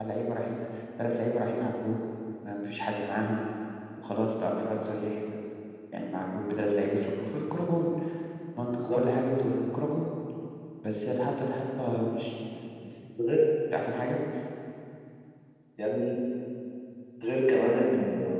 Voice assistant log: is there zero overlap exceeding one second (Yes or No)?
Yes